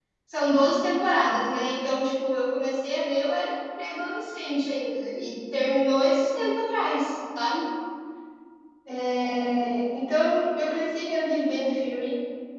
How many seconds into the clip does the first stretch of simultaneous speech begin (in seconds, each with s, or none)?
none